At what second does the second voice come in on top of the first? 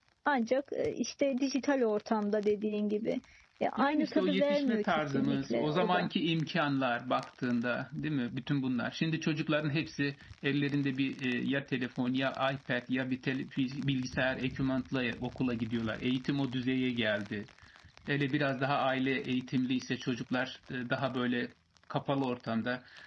3.8 s

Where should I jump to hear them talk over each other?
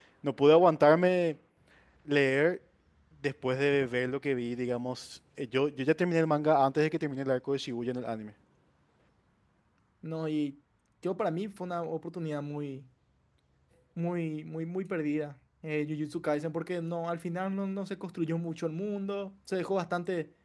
none

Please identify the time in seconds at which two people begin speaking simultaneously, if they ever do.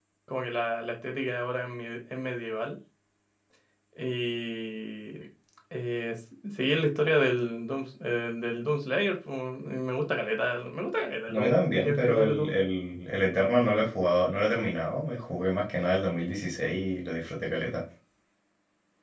11.3 s

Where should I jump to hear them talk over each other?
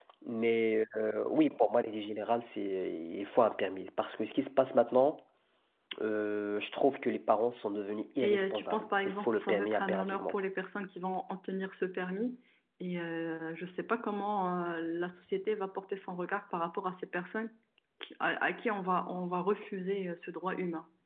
8.2 s

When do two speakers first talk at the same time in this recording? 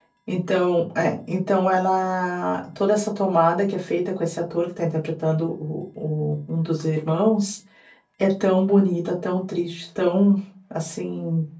none

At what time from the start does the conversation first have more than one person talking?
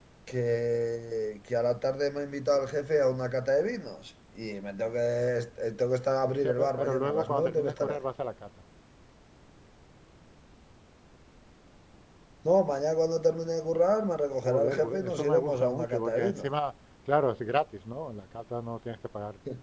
6.4 s

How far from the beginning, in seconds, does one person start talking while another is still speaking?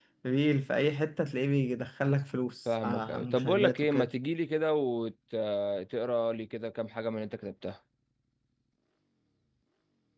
2.7 s

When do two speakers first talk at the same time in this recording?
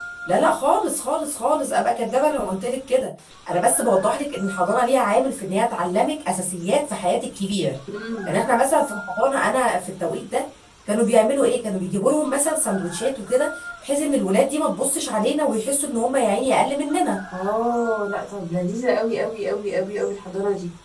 none

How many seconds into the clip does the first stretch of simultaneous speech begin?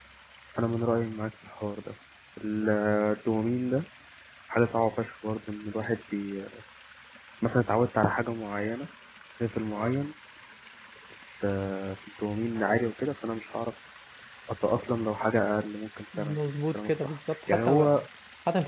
16.1 s

